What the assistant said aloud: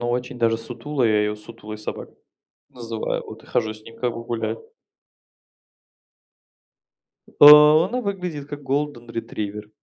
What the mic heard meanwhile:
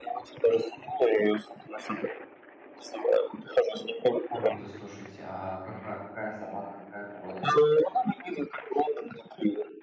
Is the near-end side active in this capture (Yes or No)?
Yes